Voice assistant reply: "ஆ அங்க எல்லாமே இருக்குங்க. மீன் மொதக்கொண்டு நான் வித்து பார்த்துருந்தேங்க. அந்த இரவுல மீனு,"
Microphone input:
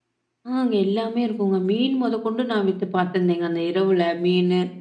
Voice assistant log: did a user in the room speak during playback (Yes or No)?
No